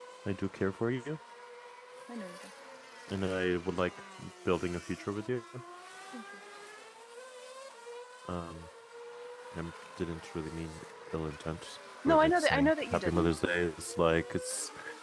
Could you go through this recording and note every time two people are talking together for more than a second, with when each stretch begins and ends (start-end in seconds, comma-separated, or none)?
12.1-13.3